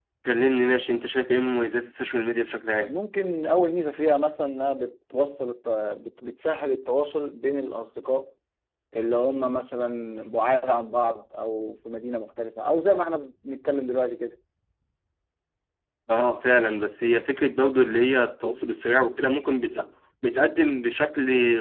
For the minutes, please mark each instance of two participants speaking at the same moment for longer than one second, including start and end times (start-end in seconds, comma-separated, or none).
none